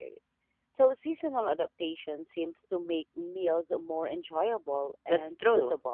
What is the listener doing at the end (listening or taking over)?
taking over